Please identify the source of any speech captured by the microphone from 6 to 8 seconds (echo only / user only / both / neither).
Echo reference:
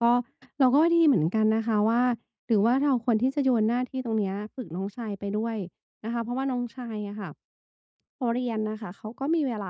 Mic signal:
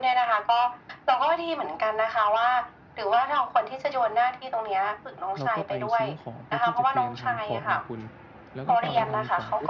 both